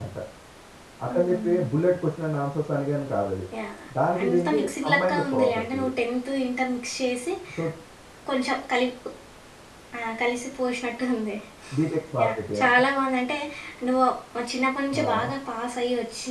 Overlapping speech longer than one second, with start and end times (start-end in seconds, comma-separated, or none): 4.2-5.9